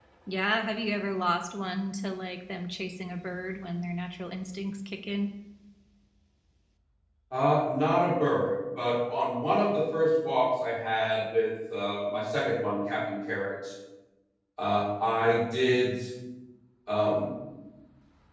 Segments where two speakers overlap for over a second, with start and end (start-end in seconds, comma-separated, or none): none